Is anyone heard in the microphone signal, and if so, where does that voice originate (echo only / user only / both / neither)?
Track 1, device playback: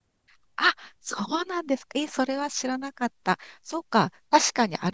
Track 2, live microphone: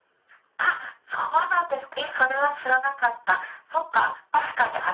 echo only